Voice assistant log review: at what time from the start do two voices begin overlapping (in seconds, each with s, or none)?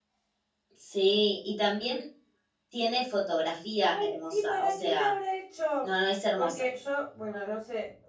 3.8 s